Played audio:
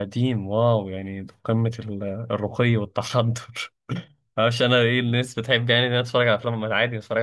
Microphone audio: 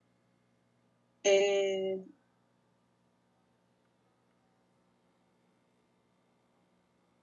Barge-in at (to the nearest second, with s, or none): 1 s